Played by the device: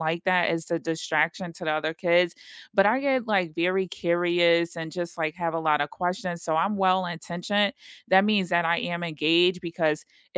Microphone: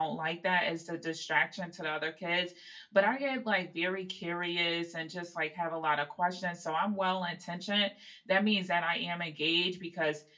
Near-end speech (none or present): none